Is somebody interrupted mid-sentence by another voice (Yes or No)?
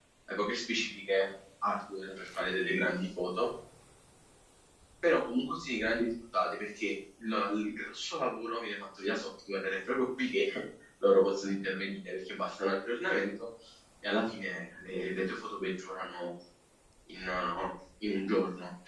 No